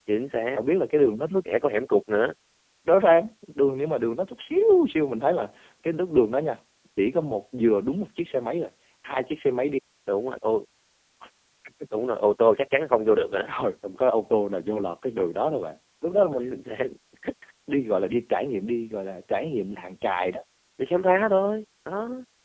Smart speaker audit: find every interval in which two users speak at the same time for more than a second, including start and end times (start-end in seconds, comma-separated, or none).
none